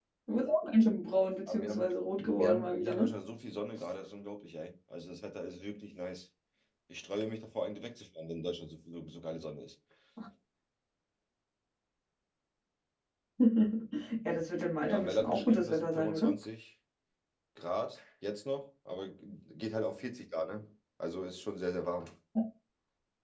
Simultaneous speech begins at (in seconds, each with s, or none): 1.5 s